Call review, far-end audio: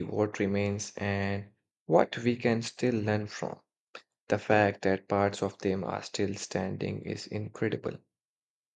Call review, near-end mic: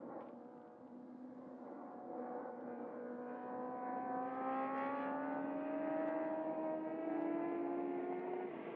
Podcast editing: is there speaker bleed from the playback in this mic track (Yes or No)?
No